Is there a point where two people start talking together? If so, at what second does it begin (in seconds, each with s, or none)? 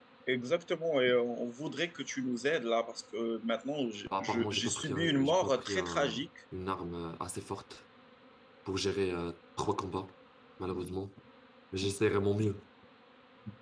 4.1 s